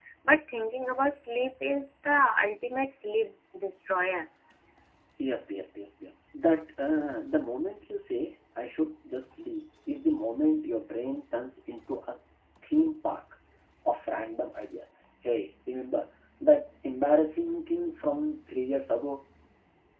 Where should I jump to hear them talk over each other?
none

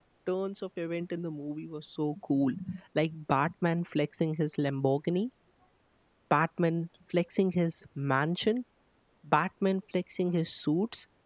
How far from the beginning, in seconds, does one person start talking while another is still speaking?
none

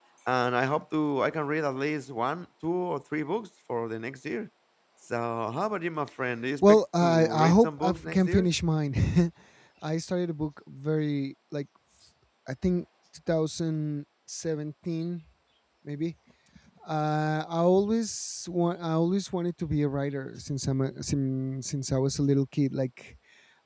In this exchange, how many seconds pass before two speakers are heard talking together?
6.6 s

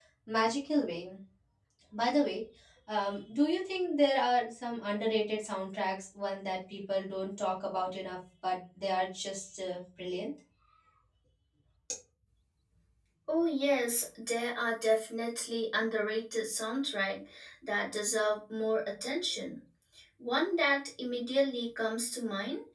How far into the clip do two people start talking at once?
none

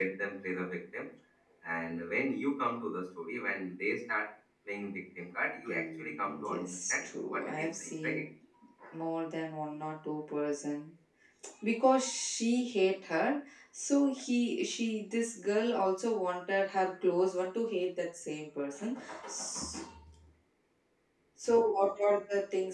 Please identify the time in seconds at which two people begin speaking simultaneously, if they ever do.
5.7 s

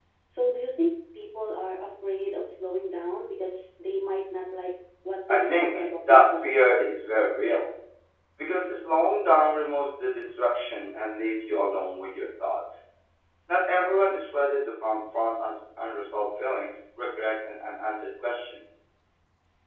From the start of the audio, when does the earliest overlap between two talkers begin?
5.3 s

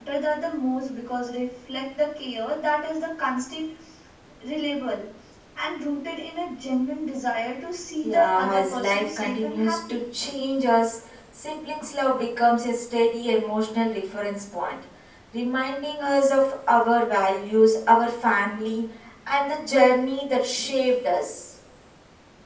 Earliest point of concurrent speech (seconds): 8.0 s

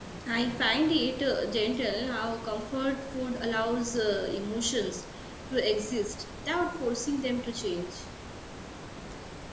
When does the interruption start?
none

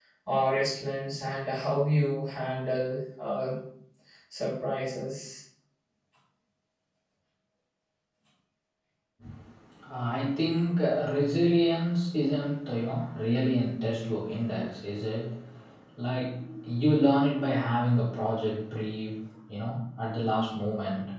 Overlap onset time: none

